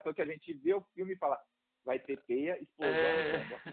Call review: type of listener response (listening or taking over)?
taking over